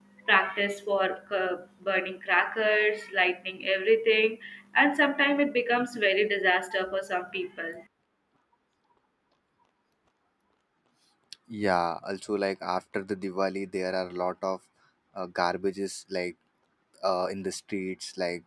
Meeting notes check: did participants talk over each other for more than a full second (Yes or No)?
No